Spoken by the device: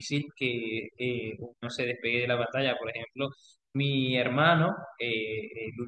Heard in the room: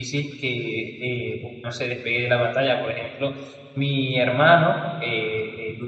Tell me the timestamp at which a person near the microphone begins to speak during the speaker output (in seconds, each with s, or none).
none